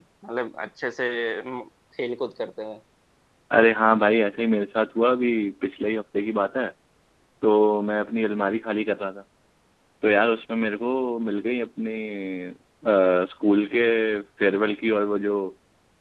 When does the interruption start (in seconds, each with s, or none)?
none